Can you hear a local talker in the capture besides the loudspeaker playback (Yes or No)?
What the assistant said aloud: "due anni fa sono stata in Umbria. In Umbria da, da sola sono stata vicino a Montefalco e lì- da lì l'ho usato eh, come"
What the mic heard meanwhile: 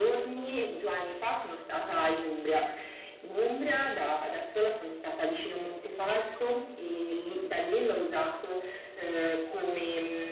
No